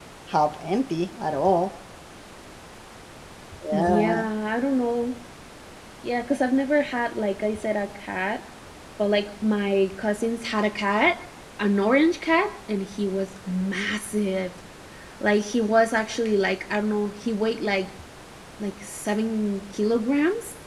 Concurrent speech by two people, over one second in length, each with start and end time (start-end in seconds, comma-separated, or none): none